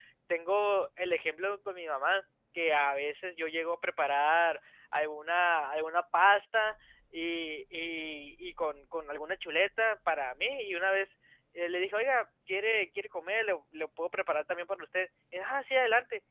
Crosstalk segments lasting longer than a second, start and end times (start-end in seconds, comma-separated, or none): none